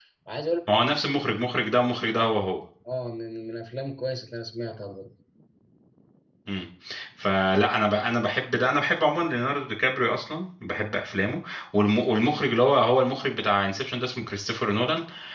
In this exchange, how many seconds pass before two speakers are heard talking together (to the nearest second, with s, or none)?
none